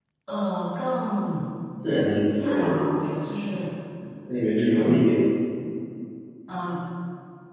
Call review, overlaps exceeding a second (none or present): none